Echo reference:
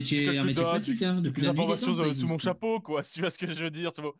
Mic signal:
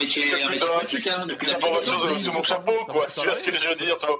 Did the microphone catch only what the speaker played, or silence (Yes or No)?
No